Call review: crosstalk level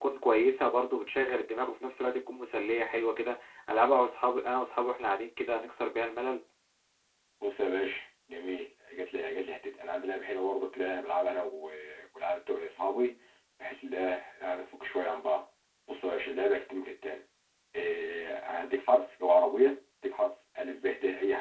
none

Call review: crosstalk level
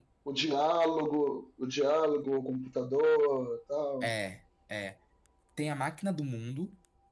none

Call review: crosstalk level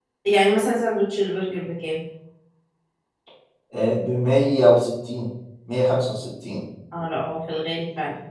none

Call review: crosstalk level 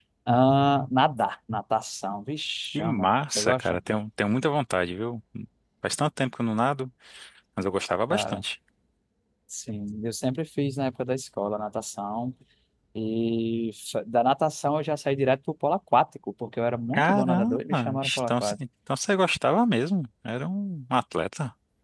present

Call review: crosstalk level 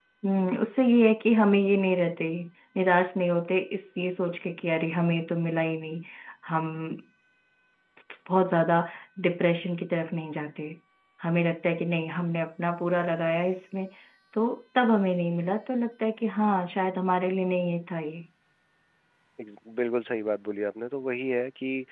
none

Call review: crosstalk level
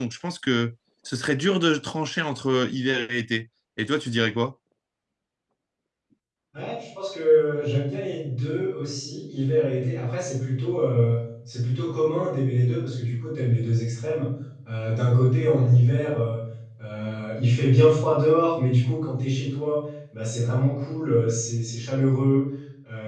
none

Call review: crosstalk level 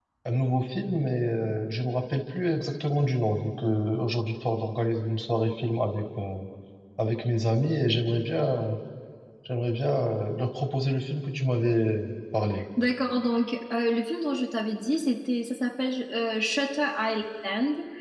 none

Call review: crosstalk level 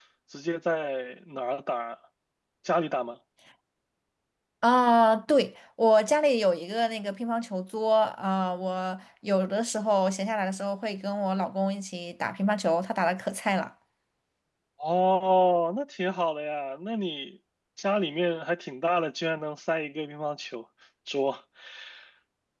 none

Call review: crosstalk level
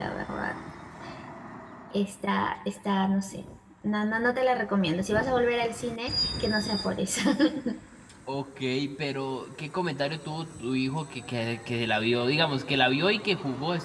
none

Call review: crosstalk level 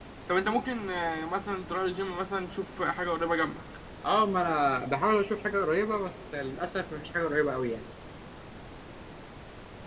none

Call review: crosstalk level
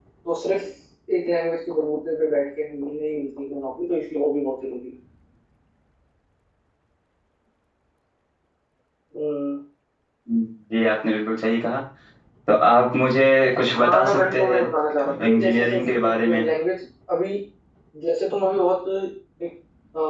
present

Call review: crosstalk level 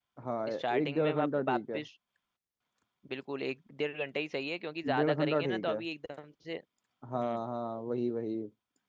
present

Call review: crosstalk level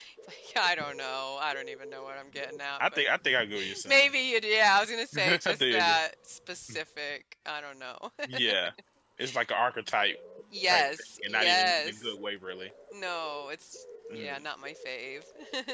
present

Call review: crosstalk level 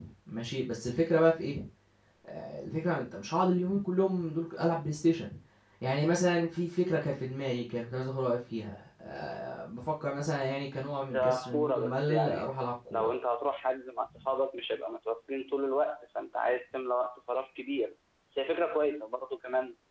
present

